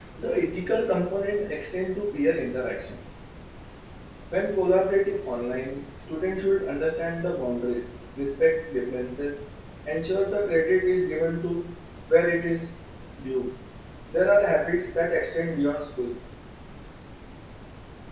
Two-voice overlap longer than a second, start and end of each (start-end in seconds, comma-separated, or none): none